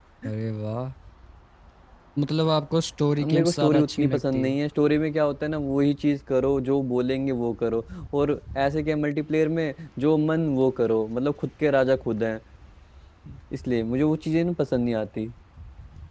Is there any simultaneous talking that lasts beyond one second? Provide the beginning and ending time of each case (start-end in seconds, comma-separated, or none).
3.2-4.5